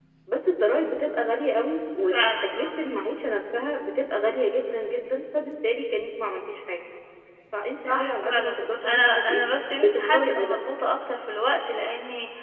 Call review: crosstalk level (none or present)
present